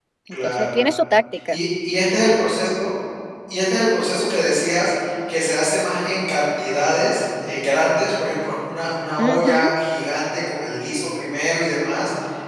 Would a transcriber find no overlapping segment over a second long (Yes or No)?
Yes